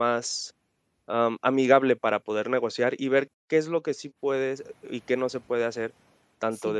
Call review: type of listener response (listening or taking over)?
listening